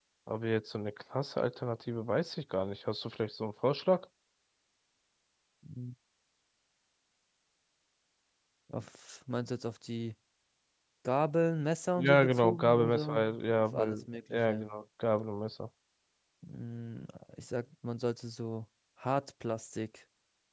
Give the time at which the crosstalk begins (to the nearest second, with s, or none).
12 s